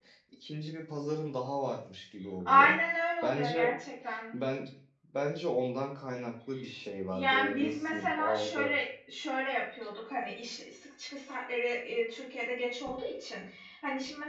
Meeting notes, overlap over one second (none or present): present